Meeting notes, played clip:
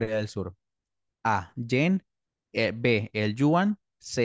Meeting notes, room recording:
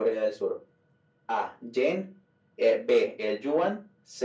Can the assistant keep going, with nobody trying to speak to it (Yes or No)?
Yes